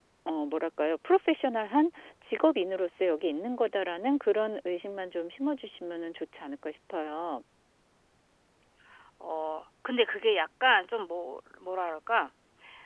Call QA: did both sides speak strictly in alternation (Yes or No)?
Yes